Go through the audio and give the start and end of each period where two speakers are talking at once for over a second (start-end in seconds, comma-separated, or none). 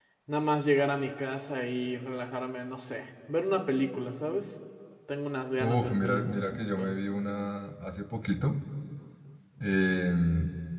5.6-6.9